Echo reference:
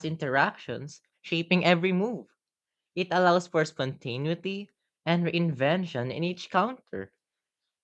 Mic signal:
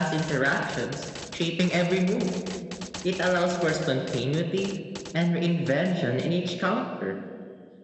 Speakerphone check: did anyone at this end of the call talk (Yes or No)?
No